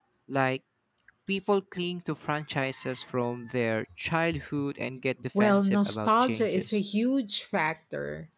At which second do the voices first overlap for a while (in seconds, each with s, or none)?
5.4 s